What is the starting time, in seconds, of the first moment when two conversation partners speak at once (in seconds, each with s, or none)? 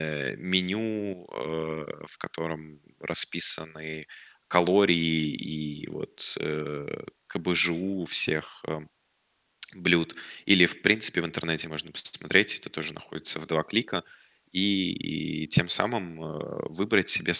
none